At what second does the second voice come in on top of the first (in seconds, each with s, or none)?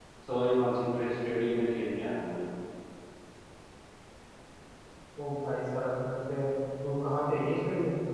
none